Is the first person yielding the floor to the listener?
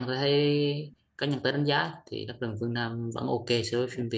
Yes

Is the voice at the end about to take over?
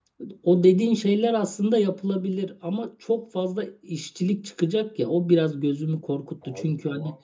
No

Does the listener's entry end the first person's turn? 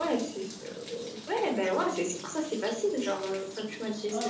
Yes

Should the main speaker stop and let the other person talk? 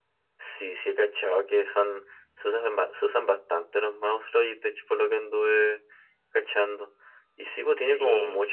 No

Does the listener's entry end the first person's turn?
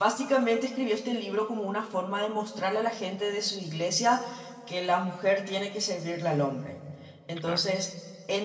No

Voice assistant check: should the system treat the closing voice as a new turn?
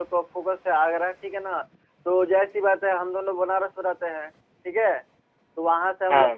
No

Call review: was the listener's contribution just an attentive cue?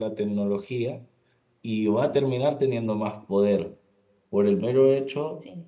Yes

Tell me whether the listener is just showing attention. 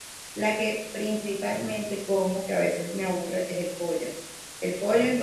Yes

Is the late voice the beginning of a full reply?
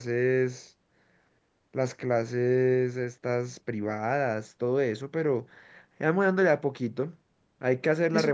No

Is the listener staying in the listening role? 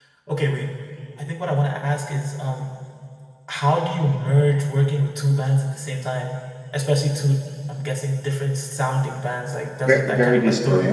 No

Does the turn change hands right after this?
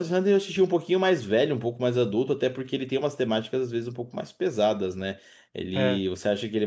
No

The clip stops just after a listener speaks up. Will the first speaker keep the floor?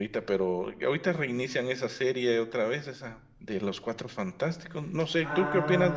No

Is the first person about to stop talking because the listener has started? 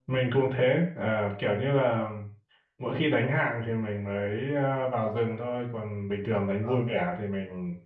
No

